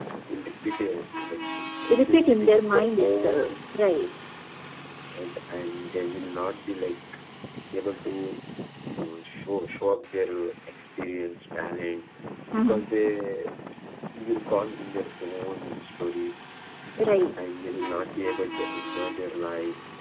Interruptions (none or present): present